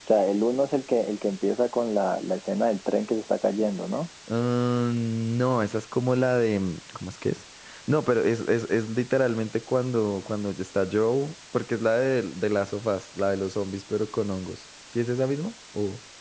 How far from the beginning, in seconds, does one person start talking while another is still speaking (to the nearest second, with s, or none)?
none